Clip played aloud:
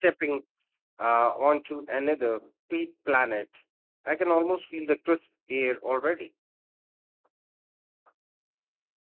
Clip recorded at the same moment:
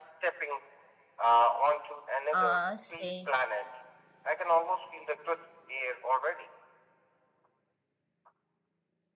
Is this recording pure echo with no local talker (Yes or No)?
No